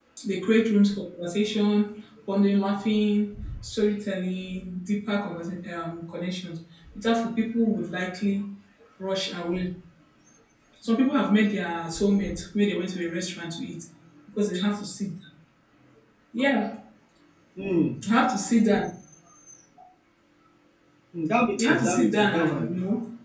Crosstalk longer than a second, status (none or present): present